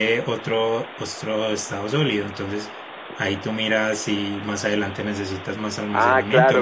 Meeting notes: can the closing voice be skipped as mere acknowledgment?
No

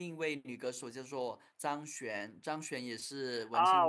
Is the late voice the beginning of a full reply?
Yes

